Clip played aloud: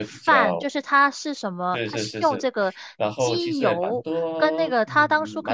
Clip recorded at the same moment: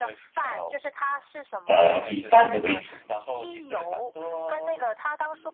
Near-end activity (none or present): present